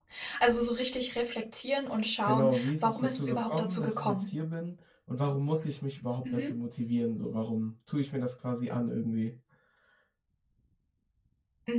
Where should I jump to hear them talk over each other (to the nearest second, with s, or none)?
2 s